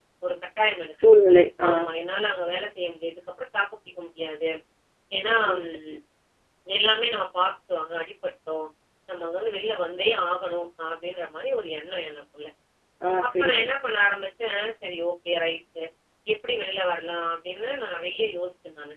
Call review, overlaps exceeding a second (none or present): none